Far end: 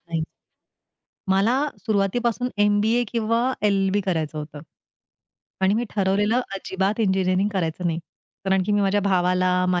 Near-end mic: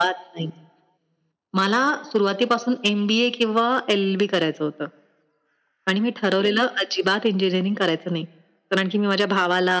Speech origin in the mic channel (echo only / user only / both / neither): echo only